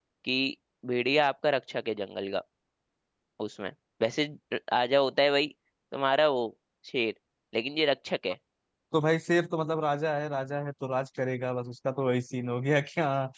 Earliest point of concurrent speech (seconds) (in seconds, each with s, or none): none